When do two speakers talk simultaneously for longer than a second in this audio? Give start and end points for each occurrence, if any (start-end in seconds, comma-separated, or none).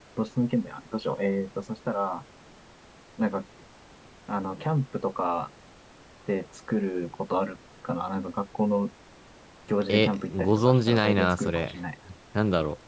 9.9-11.8